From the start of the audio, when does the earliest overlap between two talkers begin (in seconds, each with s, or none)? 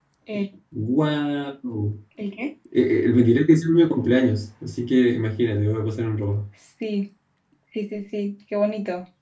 none